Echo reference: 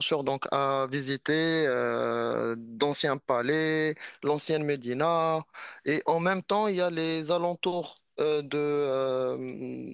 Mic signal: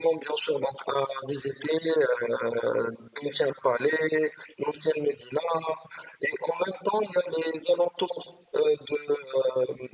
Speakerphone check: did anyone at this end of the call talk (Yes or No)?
No